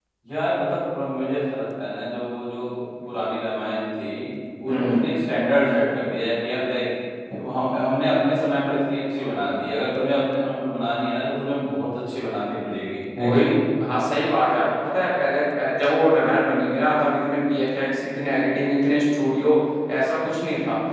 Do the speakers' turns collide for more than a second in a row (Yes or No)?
No